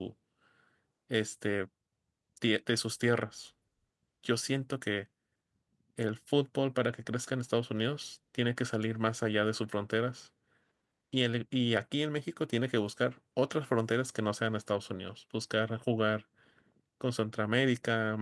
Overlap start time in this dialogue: none

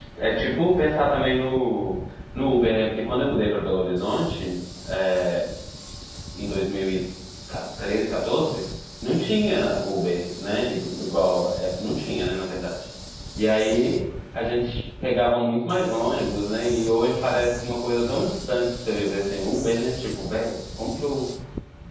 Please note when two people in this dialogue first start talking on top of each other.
none

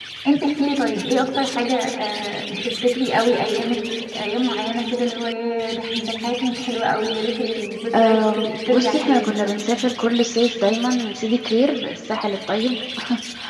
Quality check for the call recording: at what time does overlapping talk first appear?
8 s

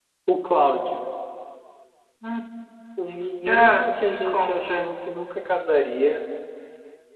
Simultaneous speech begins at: 3 s

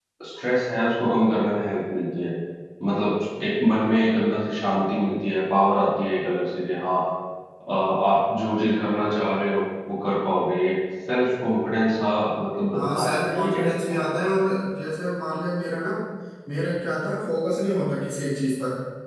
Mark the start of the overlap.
13 s

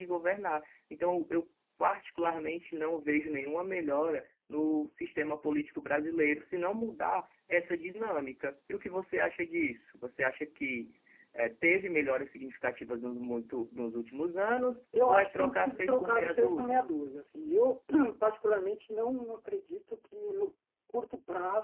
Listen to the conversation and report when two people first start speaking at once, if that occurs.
15 s

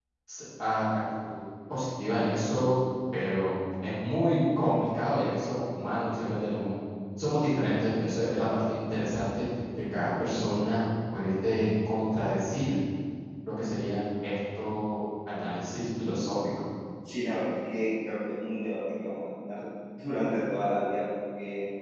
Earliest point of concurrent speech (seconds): none

